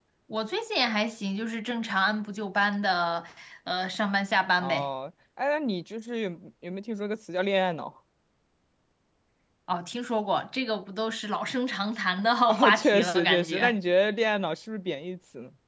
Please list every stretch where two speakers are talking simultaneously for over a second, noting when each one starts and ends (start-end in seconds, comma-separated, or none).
12.5-13.8